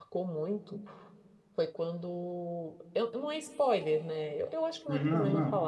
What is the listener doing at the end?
listening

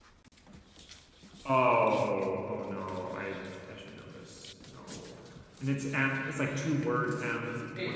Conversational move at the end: taking over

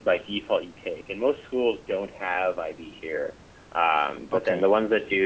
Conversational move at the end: listening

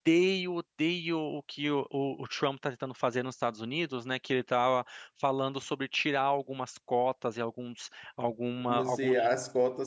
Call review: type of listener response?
taking over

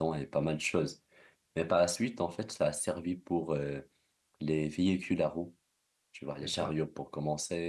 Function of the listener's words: listening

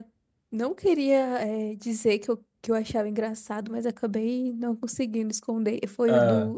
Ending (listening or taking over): listening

